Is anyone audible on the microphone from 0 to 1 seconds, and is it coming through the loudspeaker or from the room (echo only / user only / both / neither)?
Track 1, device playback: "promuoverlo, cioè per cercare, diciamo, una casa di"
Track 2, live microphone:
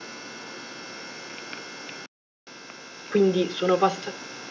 neither